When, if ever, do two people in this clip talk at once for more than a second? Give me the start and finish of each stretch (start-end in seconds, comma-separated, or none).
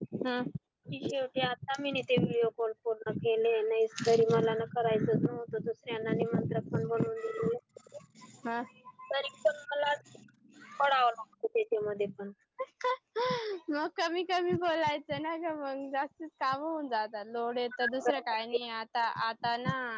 none